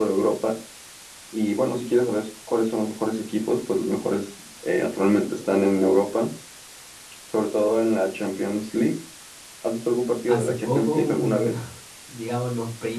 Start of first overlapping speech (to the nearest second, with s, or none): 10 s